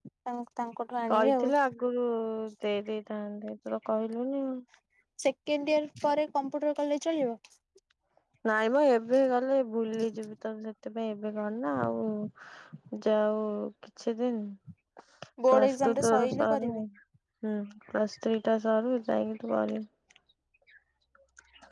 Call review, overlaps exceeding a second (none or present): present